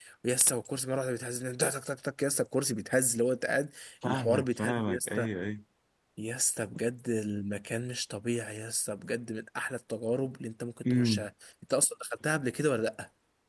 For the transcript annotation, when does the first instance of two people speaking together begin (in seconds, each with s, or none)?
4.0 s